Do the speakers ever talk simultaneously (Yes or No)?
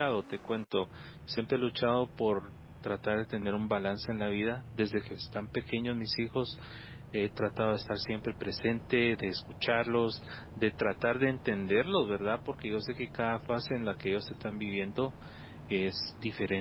No